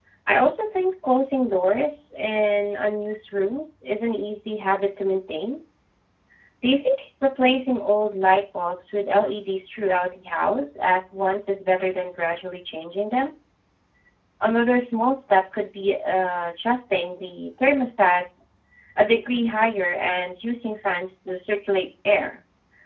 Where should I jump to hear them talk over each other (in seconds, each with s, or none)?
none